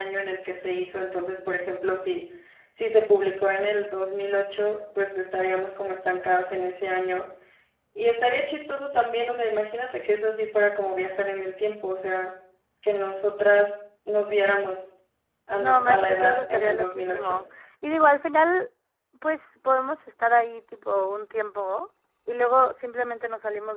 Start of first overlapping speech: 15.5 s

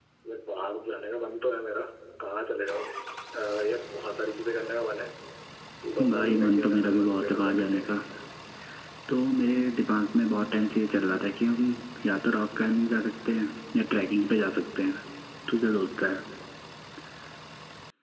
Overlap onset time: 6.1 s

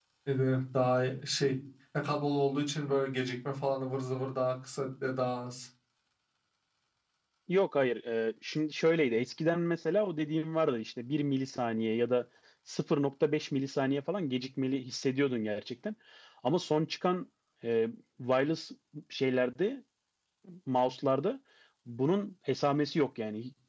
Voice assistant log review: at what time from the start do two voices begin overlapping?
none

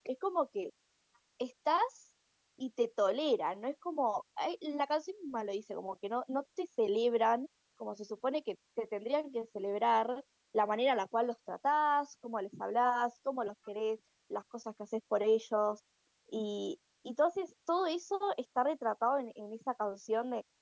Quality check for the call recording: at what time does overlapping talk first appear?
none

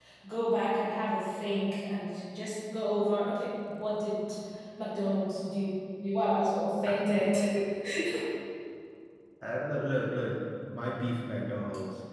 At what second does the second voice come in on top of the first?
none

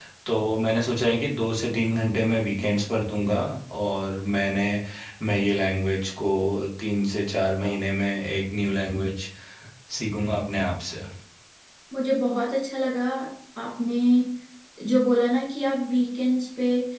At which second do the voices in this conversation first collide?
none

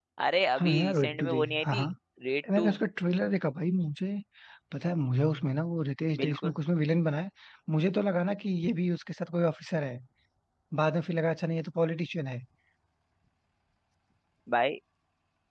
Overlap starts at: 0.6 s

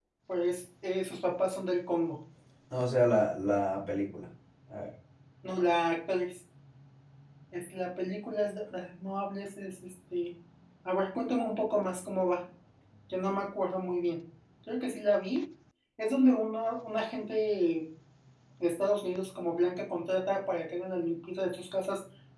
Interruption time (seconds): none

